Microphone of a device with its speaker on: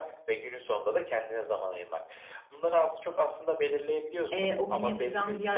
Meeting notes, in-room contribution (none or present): present